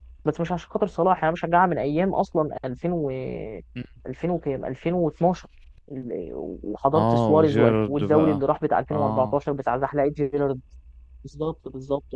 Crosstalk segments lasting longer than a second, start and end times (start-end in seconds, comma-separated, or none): 6.9-8.4